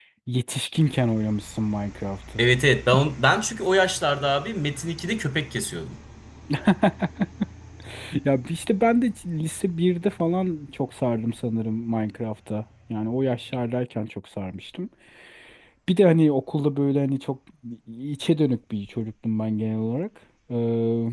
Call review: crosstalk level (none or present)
none